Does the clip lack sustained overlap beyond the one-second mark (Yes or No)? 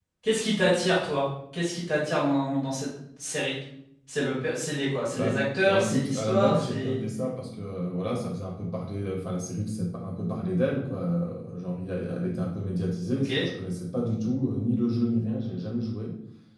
No